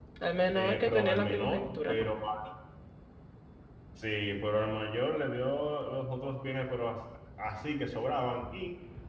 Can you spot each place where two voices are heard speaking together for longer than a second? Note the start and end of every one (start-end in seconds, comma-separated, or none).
0.5-2.1